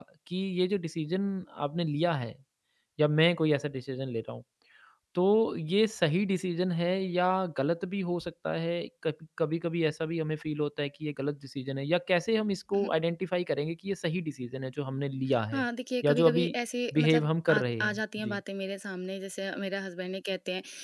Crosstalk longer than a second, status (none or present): present